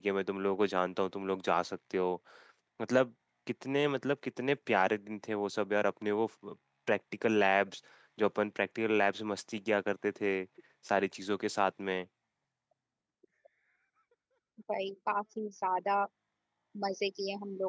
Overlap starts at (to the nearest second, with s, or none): none